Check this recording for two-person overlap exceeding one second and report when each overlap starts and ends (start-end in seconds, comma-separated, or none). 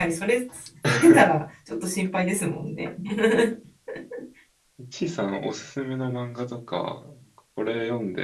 none